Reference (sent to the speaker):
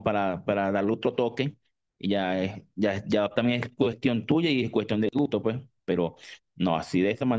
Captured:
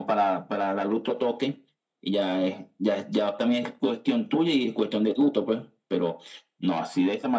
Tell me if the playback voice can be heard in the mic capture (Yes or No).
Yes